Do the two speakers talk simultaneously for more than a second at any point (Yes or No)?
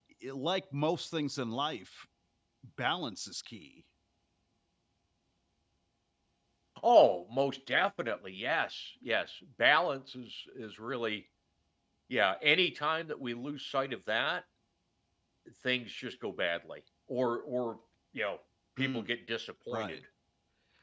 No